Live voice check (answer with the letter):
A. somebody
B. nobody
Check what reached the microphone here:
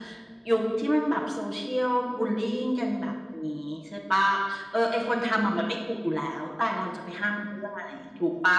B